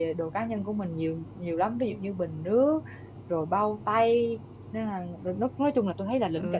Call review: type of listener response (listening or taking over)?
taking over